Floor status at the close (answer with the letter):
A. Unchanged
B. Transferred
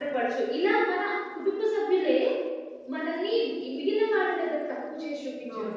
A